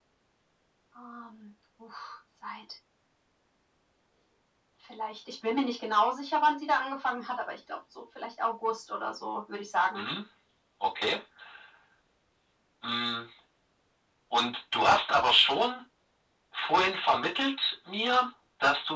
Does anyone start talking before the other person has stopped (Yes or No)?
No